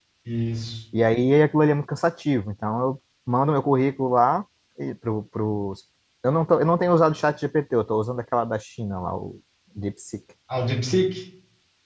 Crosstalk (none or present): none